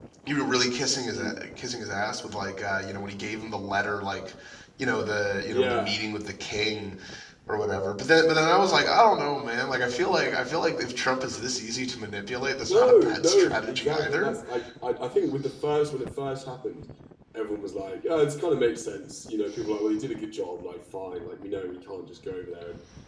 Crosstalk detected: Yes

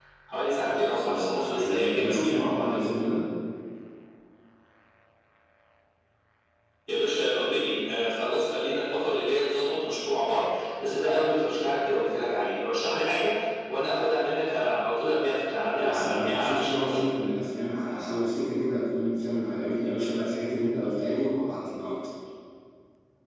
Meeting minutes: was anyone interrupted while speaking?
Yes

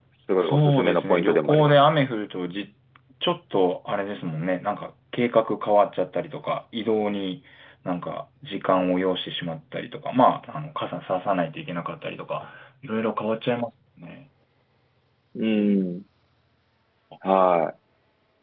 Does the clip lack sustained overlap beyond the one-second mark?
No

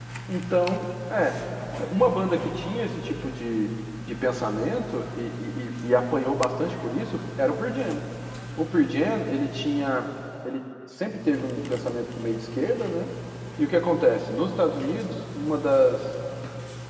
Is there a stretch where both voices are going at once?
No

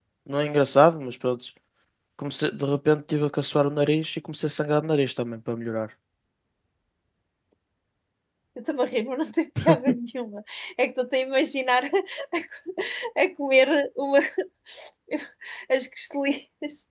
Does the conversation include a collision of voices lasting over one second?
No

